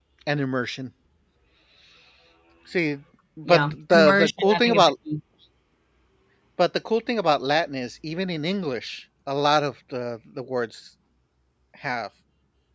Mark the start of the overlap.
3.4 s

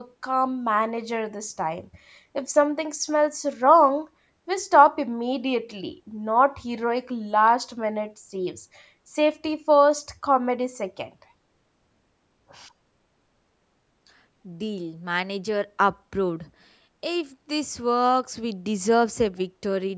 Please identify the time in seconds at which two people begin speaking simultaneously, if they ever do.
none

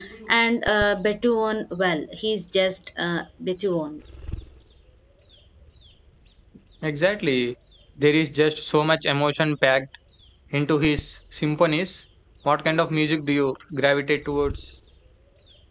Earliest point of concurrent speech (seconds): none

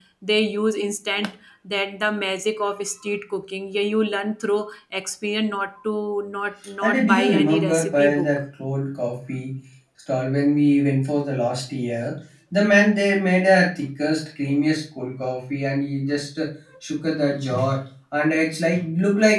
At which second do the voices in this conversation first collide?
6.8 s

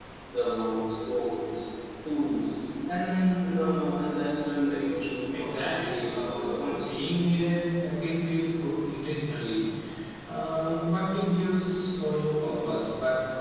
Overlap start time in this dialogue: 5.3 s

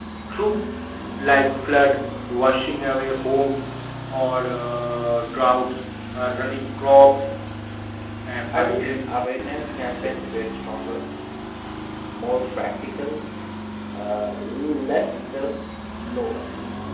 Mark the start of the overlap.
8.5 s

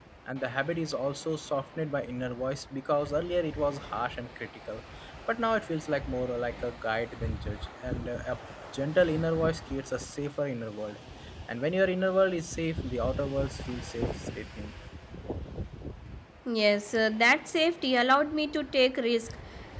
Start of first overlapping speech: none

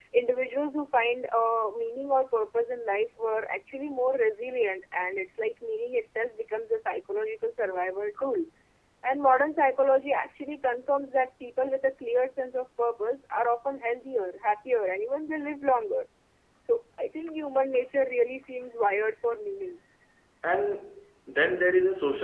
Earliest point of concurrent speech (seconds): none

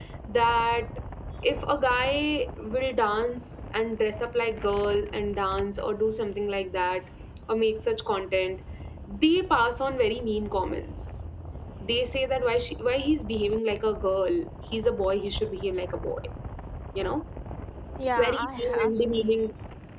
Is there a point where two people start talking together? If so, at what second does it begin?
18.2 s

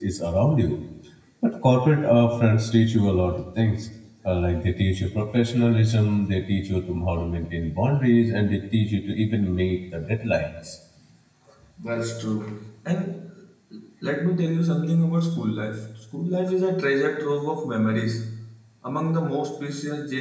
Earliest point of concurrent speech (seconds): none

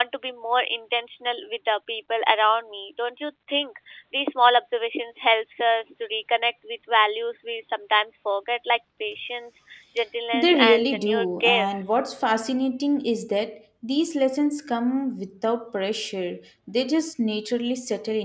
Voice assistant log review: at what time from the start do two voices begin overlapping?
10.3 s

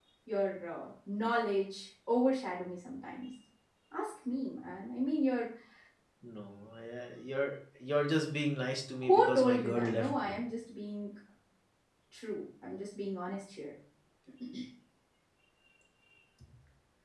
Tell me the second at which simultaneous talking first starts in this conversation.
9.0 s

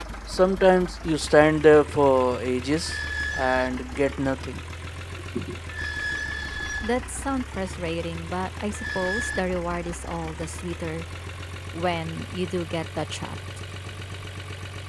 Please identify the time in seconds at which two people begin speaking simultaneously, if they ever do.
none

